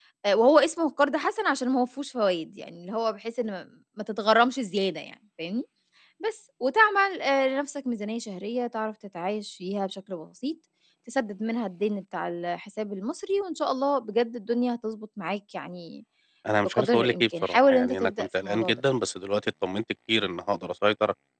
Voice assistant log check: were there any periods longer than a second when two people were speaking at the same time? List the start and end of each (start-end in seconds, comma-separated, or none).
16.6-18.8